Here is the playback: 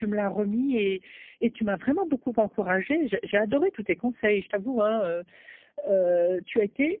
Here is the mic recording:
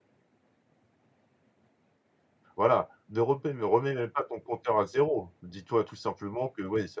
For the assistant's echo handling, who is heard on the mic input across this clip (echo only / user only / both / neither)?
user only